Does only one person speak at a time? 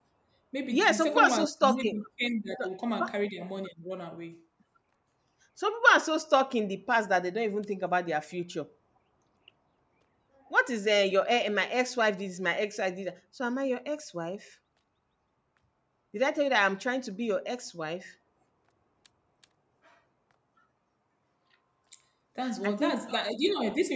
No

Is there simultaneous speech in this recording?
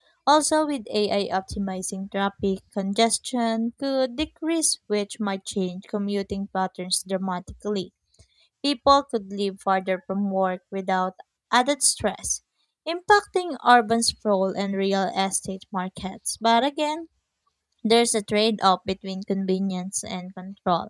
No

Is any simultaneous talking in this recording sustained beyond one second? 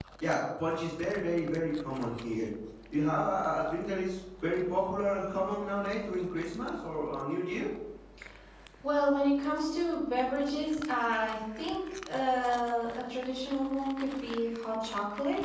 No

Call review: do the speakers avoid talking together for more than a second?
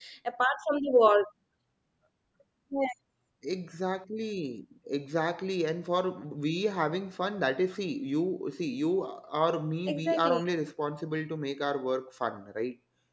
Yes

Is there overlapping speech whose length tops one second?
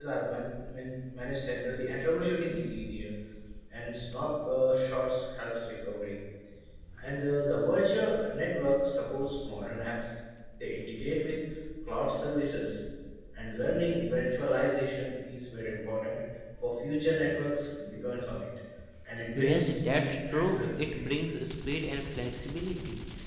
Yes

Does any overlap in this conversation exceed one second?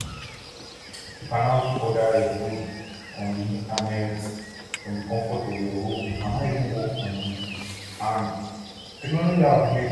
No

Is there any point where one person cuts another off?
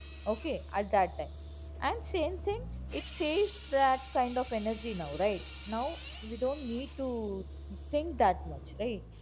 No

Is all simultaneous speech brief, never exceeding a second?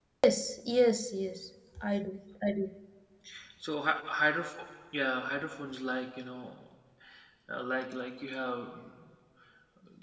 Yes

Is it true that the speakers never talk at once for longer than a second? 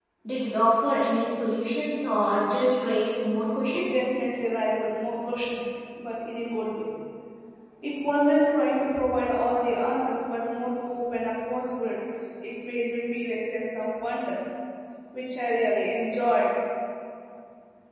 Yes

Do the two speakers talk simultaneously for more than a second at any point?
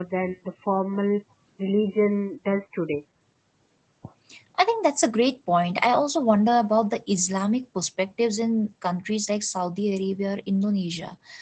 No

